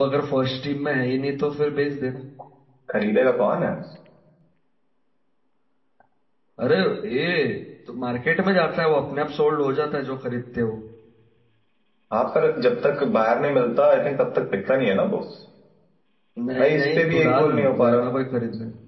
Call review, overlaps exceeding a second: present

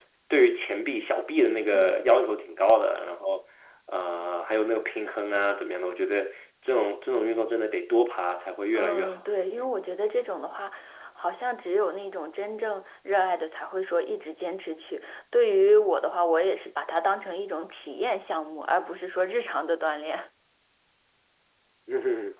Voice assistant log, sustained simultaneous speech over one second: none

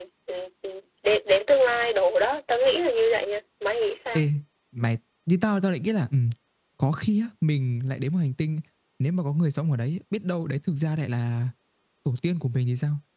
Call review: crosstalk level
none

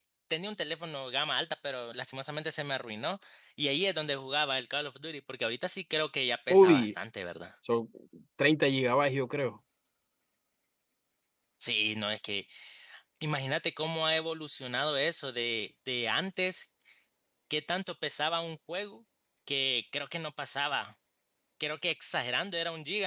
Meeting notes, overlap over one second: none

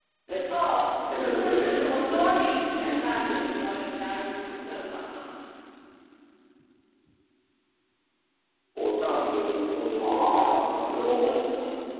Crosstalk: present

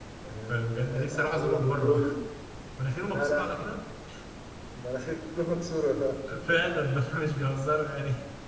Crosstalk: present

